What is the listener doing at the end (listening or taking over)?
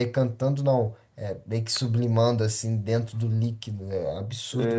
taking over